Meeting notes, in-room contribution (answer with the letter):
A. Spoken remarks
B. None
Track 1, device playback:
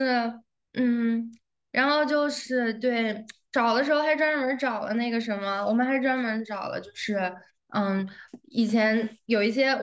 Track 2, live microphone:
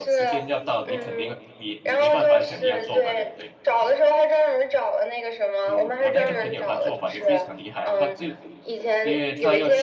A